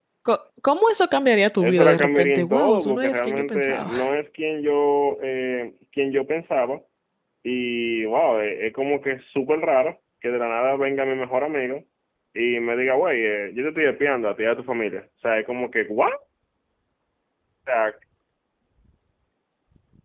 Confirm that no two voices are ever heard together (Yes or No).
No